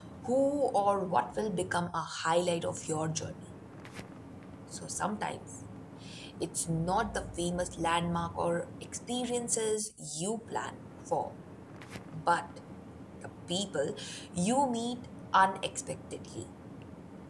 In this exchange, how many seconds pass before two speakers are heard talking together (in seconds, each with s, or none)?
none